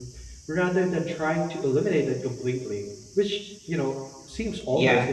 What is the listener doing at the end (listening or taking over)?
taking over